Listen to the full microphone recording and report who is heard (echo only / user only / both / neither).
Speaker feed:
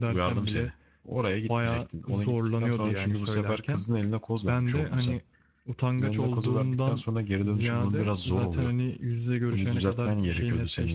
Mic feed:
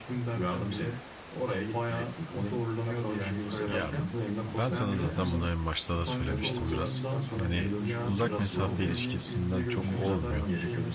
both